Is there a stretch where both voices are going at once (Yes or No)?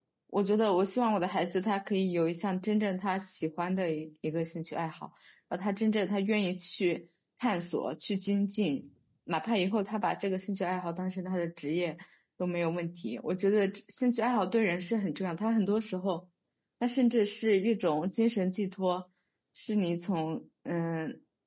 No